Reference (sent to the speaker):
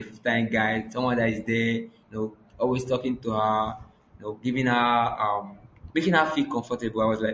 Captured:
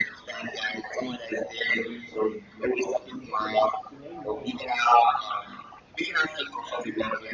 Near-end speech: present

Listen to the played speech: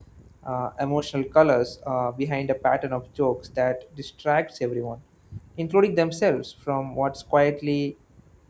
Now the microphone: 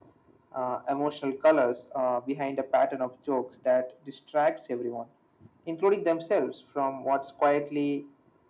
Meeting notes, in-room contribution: none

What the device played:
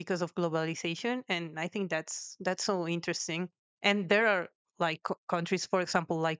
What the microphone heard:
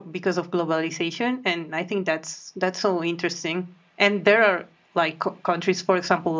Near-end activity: none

